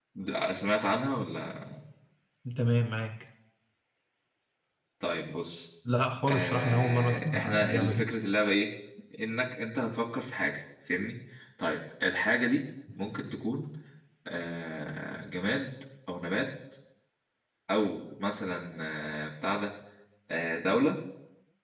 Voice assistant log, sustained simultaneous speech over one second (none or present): present